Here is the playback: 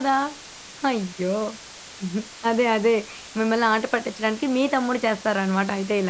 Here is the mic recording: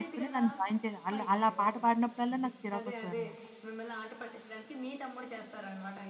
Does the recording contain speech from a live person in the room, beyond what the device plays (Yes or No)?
Yes